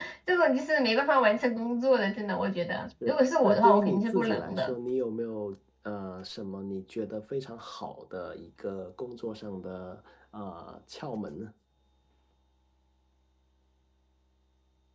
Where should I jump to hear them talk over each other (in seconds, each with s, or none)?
3.0 s